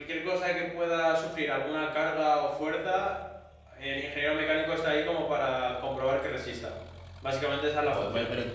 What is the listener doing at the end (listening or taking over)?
taking over